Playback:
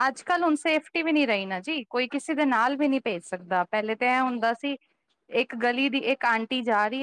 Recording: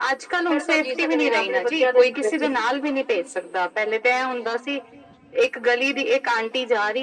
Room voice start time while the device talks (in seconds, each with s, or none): 0.5 s